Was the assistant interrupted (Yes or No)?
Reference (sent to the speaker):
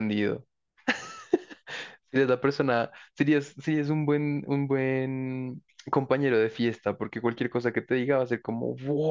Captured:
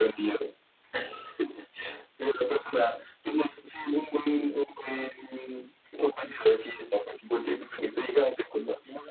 No